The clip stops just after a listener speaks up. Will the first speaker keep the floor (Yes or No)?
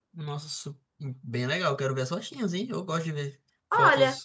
No